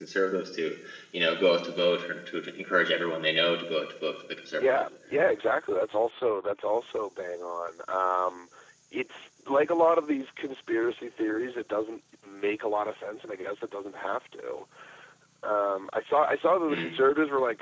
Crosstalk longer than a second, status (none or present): none